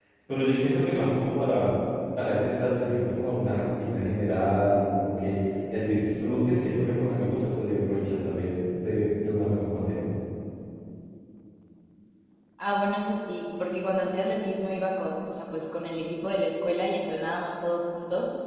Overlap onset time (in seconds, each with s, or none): none